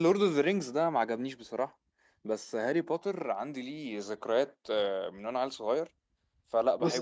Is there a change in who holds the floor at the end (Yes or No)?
Yes